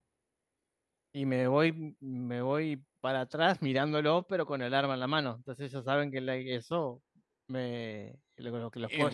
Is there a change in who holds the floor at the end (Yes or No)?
Yes